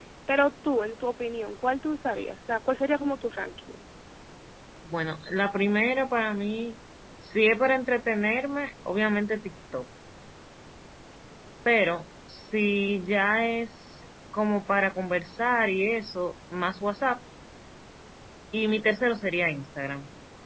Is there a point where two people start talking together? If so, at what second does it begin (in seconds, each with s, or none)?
none